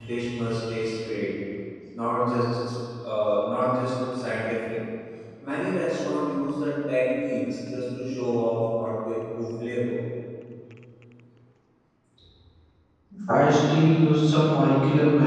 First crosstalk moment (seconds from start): none

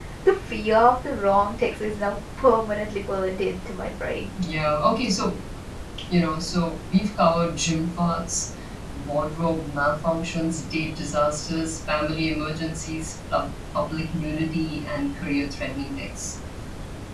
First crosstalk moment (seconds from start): none

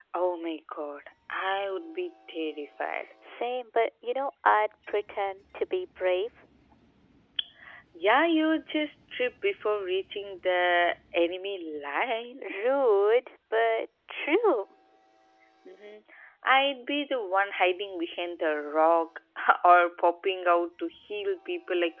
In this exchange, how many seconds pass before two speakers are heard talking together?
none

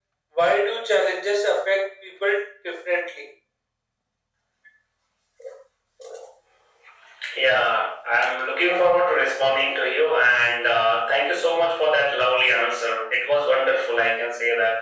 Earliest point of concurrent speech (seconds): none

